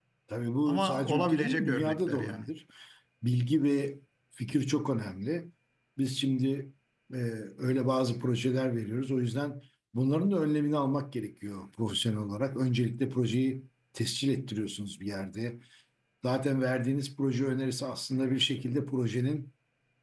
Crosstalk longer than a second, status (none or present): present